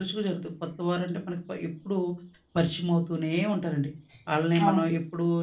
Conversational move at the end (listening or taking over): listening